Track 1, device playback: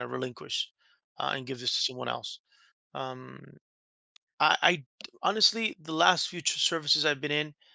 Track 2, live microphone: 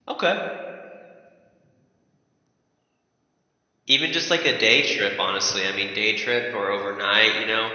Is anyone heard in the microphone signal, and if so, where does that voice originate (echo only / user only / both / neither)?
user only